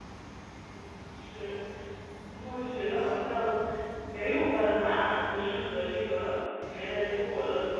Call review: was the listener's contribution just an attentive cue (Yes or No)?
Yes